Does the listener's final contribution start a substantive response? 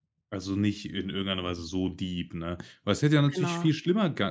No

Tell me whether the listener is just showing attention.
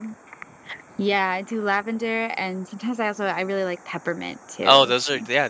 No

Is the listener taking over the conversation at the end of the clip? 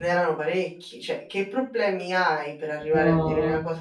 No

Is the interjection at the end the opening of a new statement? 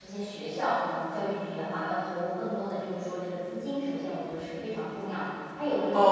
Yes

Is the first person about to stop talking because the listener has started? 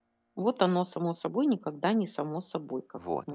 Yes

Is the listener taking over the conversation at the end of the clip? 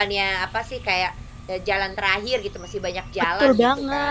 Yes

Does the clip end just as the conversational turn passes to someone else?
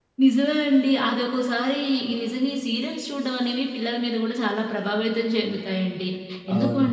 No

